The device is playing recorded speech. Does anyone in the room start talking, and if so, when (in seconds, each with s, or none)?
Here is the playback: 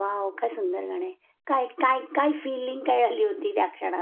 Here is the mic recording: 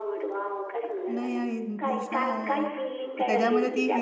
1.1 s